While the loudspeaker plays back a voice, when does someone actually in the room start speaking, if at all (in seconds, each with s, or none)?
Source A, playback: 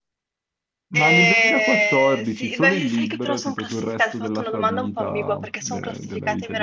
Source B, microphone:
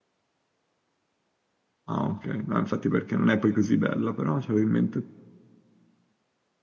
1.9 s